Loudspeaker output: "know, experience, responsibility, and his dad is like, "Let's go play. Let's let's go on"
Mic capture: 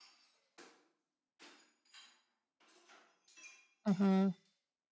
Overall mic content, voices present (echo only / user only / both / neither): user only